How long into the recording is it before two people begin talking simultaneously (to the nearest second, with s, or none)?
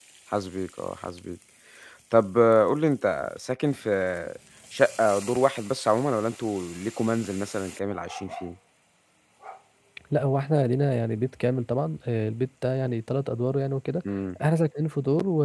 none